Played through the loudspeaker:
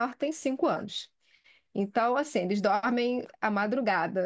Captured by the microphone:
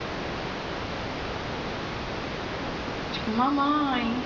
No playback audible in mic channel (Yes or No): Yes